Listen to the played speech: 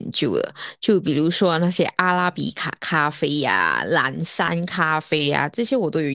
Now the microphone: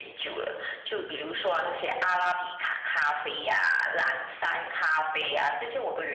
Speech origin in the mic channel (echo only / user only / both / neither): echo only